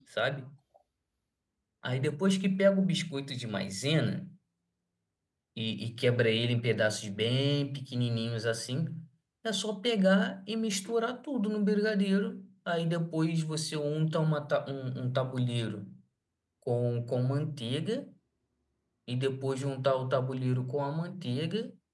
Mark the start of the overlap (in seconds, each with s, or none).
none